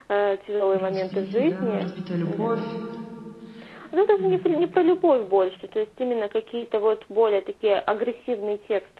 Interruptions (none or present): present